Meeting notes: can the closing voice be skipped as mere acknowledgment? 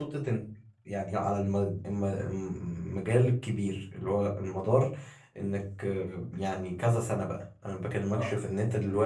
Yes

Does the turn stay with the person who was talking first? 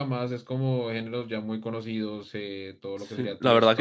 No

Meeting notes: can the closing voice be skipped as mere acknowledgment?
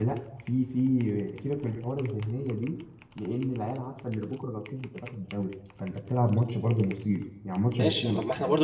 No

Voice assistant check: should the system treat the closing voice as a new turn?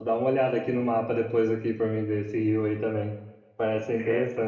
No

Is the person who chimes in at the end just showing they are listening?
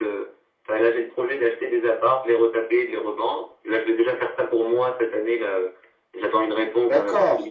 No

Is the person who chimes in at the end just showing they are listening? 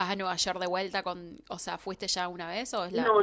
No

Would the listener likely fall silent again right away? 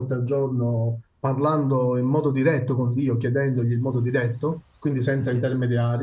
Yes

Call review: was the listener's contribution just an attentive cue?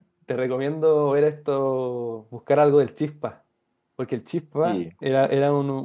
Yes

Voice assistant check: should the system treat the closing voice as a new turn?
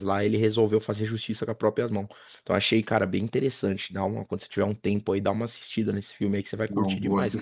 Yes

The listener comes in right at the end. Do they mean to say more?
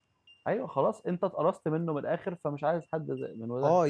Yes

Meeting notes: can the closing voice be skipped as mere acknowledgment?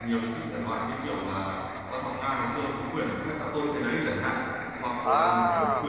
Yes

